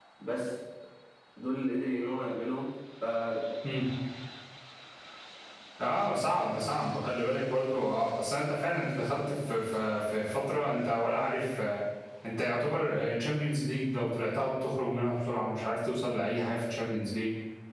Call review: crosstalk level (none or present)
none